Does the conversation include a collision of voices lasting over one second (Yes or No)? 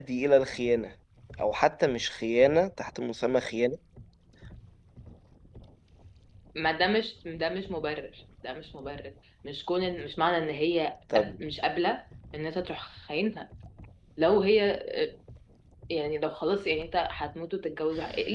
No